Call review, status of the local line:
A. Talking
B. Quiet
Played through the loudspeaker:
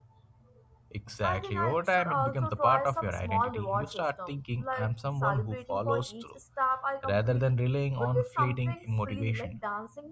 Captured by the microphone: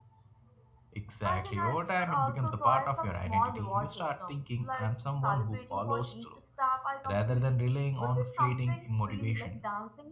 B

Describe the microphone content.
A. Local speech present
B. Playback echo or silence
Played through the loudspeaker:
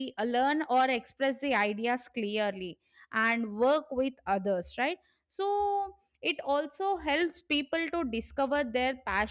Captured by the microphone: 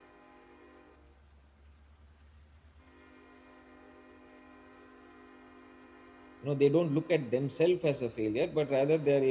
A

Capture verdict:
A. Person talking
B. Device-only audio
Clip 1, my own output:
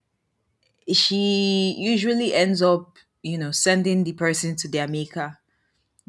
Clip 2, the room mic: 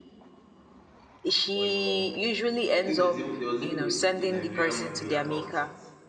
A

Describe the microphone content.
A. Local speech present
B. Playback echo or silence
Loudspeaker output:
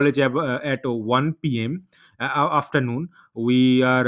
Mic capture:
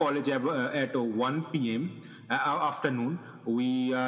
B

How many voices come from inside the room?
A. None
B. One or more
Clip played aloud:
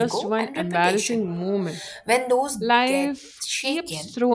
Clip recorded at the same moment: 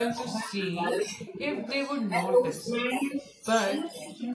B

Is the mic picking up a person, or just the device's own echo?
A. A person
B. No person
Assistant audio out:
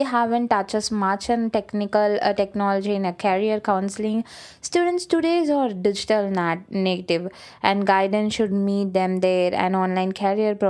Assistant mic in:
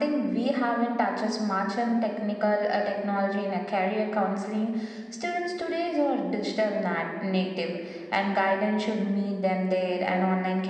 B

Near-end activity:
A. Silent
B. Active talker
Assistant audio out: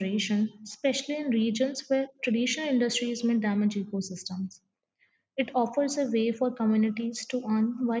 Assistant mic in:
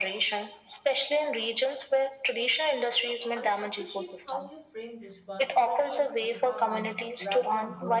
B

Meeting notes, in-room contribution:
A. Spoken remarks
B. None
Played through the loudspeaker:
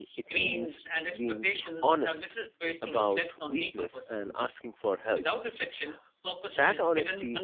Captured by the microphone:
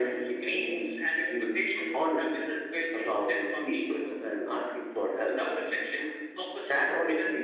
B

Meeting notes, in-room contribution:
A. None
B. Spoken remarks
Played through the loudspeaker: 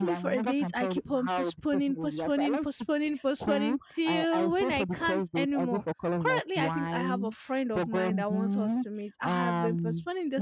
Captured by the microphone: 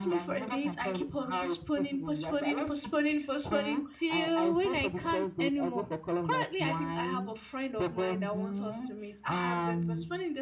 A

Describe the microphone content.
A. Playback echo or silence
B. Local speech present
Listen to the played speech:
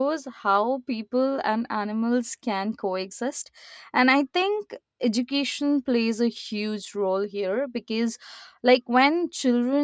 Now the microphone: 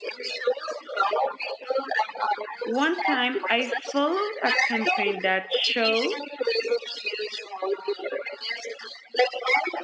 B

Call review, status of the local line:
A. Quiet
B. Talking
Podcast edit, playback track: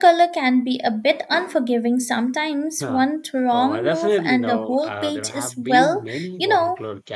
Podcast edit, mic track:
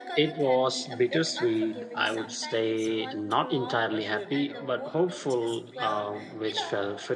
B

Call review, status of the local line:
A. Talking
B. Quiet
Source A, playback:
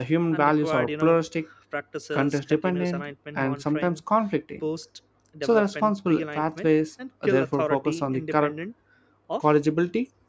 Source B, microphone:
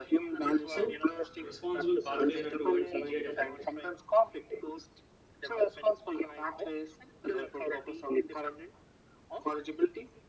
A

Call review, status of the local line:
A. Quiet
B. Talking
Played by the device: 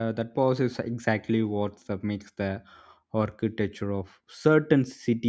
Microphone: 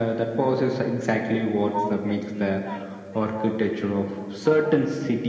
B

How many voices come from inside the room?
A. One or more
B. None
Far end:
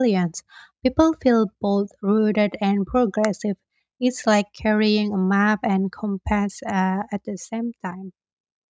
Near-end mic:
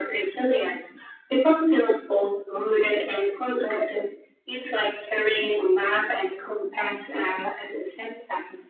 B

